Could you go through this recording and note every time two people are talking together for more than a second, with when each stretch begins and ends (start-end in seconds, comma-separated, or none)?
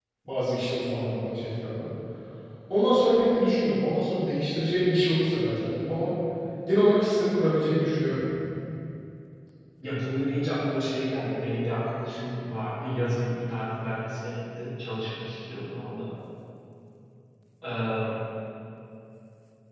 none